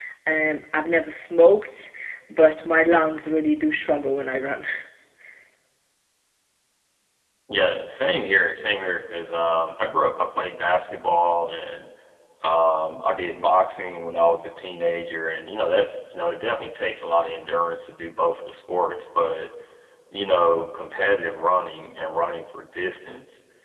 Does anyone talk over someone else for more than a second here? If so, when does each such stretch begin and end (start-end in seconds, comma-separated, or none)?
none